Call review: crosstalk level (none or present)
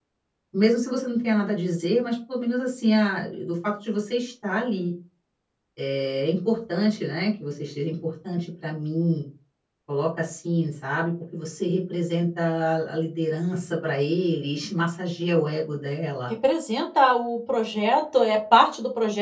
none